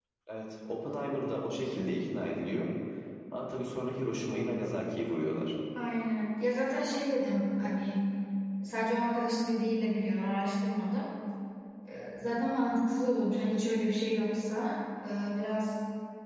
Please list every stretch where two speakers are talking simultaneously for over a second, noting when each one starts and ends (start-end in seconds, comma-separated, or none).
none